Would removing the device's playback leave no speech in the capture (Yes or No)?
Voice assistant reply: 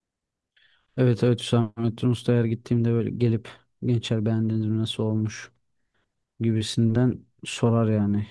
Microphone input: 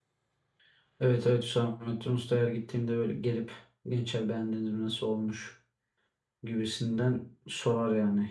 Yes